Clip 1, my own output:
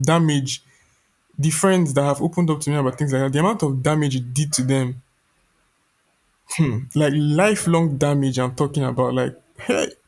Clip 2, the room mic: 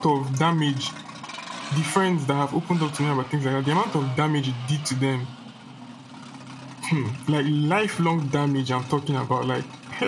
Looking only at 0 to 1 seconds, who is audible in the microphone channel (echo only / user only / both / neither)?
echo only